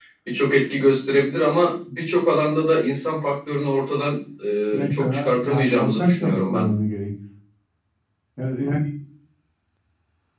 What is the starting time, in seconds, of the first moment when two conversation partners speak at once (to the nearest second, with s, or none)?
5 s